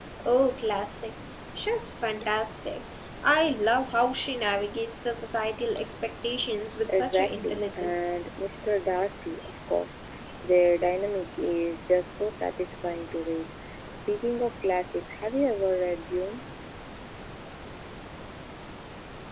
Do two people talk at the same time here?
Yes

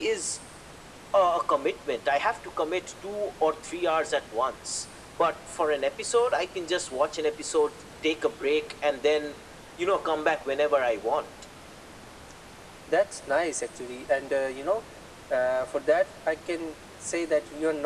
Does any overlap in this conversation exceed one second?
No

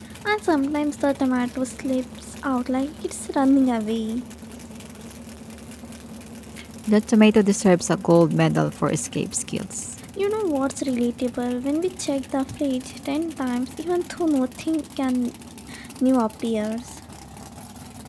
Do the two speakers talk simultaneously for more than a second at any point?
No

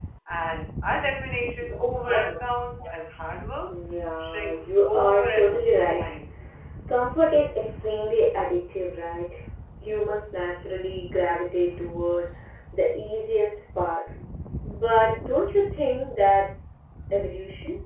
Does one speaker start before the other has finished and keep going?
Yes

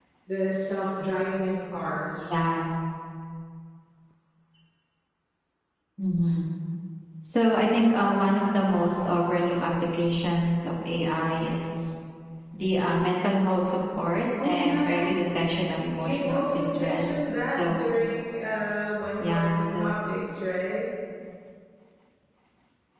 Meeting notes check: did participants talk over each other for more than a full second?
Yes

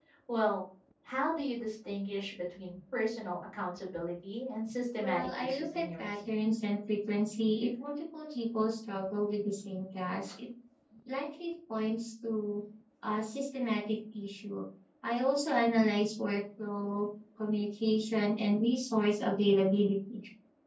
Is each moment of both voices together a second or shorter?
No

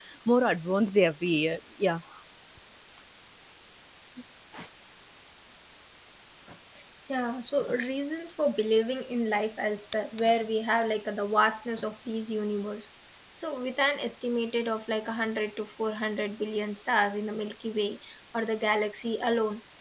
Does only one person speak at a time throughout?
Yes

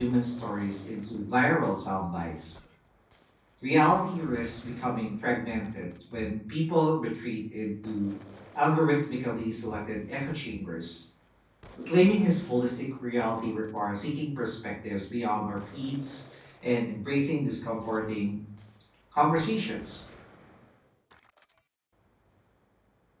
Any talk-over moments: No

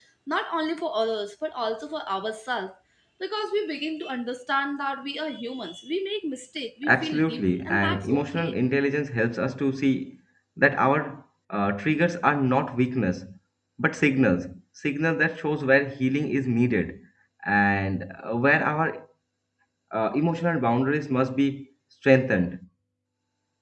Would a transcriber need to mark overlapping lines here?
Yes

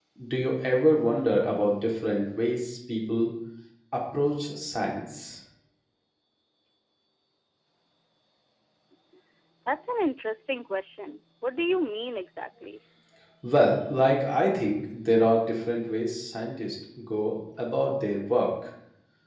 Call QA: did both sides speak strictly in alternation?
Yes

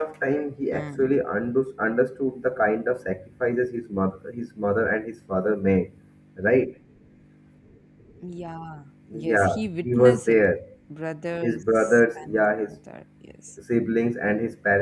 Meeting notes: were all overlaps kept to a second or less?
No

